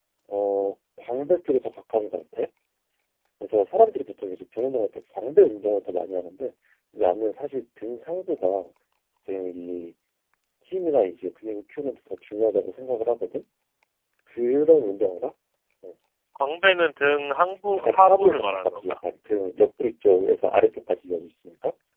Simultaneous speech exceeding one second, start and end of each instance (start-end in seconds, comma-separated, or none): 17.8-19.0